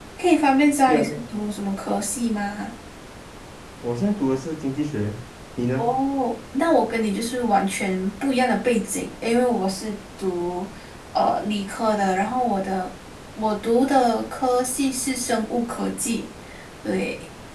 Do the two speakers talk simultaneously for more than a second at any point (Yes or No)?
No